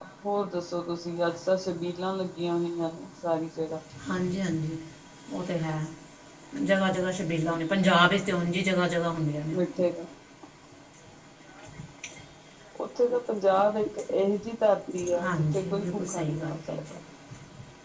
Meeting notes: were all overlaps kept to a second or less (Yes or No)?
No